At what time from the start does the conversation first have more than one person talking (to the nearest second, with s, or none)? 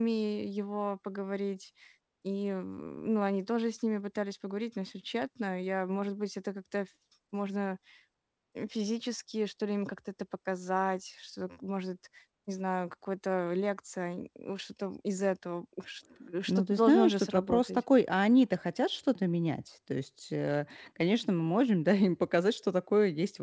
16 s